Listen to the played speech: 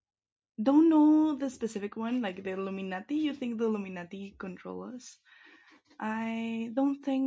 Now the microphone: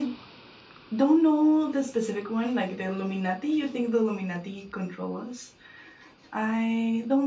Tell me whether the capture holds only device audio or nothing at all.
Yes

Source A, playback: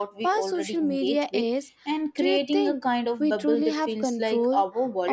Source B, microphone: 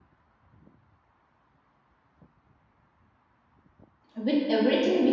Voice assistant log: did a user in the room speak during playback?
Yes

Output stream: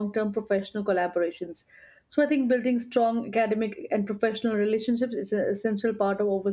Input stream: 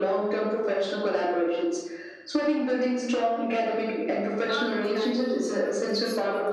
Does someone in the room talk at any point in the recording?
Yes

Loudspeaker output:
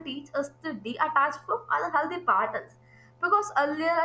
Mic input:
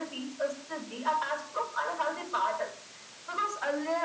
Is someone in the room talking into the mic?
No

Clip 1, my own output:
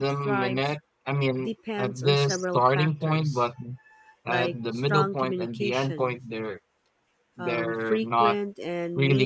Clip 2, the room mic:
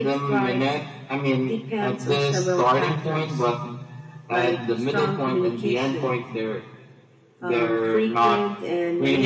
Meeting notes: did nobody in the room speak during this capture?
Yes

